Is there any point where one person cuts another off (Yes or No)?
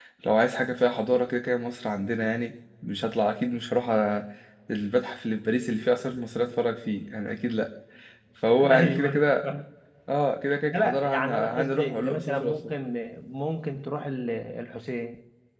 Yes